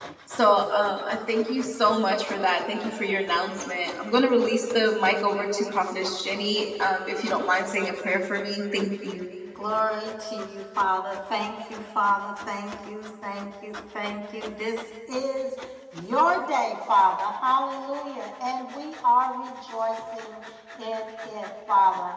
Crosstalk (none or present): none